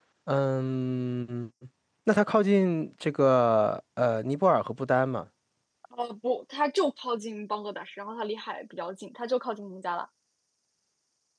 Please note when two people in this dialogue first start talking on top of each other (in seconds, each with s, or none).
none